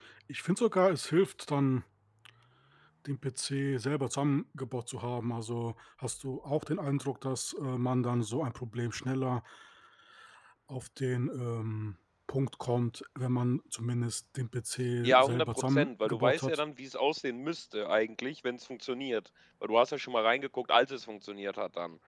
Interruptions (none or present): present